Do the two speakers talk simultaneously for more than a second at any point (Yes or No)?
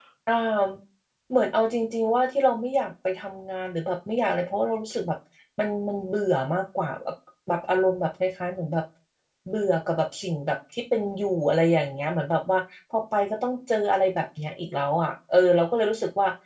No